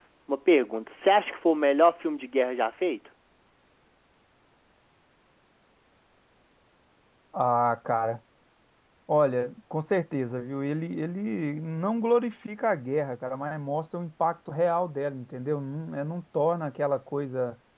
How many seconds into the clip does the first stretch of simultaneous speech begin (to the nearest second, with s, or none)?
none